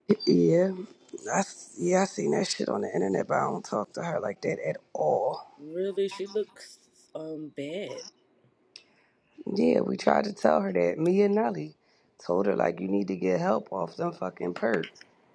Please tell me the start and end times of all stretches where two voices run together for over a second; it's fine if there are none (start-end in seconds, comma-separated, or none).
none